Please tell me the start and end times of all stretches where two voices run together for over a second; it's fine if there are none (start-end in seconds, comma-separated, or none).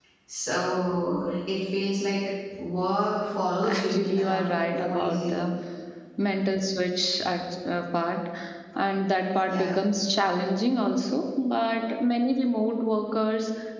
3.6-5.5